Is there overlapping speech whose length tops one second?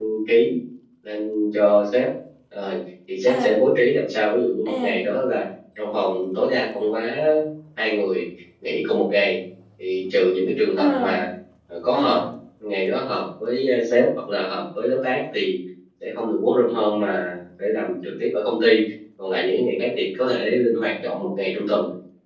No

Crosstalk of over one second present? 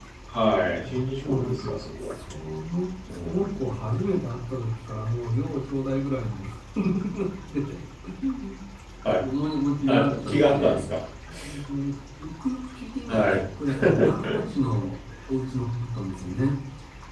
Yes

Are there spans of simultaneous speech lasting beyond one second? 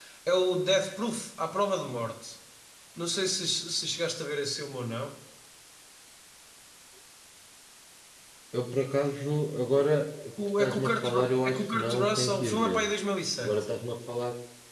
Yes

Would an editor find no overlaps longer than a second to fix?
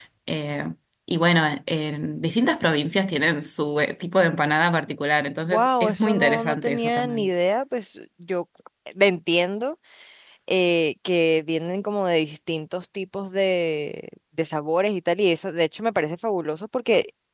No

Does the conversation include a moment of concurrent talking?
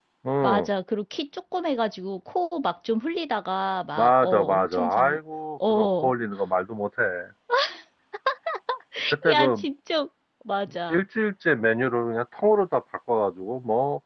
Yes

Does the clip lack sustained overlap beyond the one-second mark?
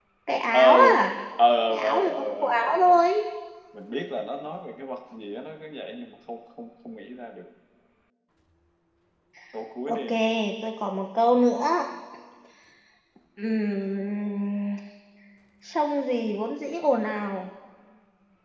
No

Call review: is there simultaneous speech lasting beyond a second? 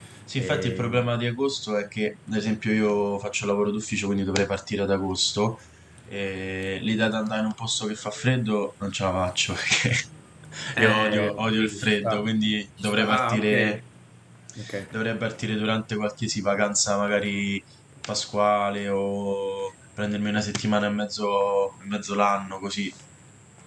Yes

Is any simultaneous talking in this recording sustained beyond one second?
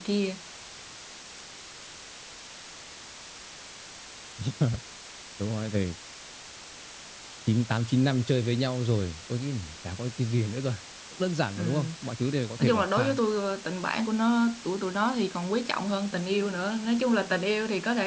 No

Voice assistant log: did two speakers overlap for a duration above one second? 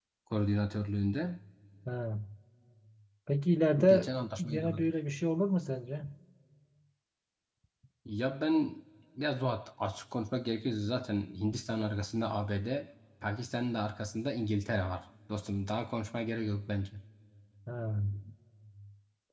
No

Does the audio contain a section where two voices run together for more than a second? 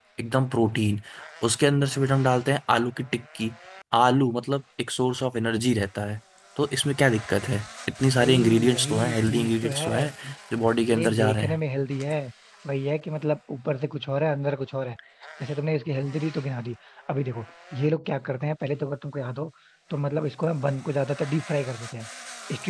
Yes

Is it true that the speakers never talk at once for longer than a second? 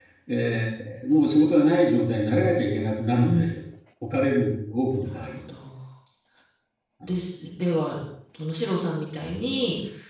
Yes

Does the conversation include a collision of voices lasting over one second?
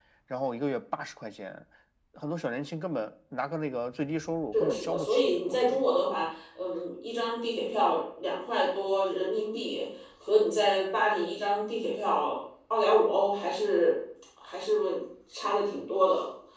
Yes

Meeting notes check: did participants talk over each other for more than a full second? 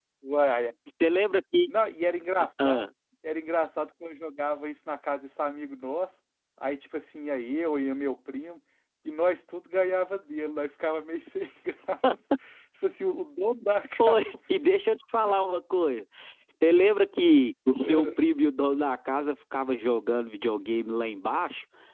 No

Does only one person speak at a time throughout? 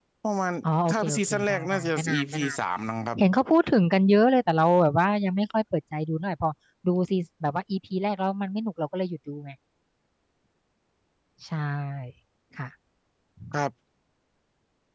No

